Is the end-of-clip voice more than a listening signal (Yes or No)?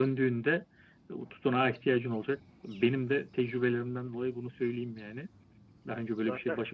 No